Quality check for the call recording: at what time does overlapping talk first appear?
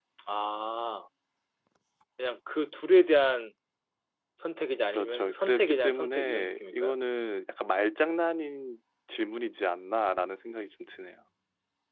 4.9 s

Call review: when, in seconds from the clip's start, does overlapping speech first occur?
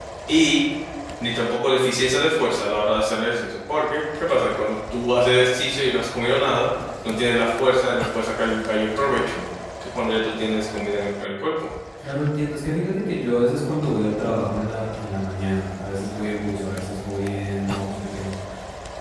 none

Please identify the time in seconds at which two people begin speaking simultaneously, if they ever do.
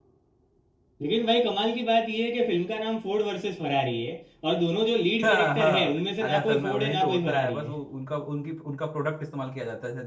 5.2 s

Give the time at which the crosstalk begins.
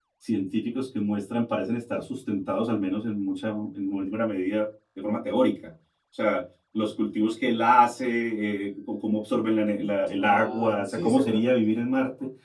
10.2 s

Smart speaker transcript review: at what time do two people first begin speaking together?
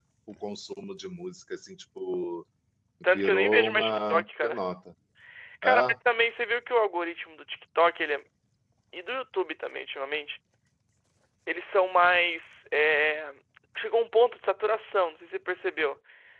3.1 s

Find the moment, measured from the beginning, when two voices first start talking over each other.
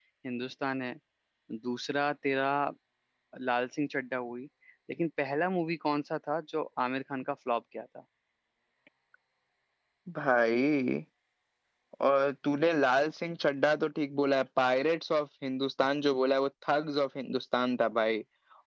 none

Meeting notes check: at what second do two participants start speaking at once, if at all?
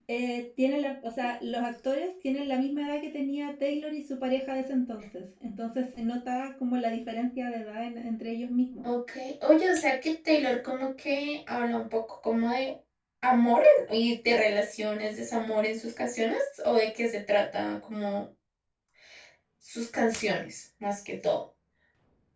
none

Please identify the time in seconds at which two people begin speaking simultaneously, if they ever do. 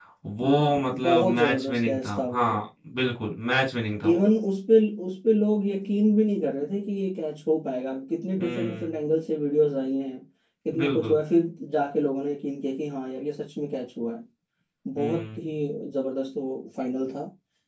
0.6 s

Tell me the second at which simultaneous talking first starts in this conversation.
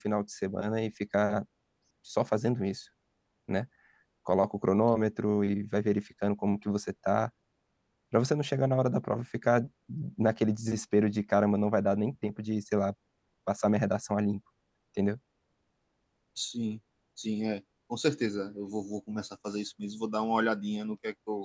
none

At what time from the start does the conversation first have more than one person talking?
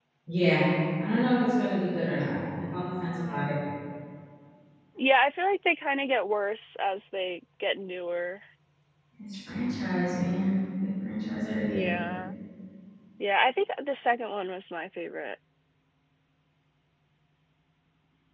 2.1 s

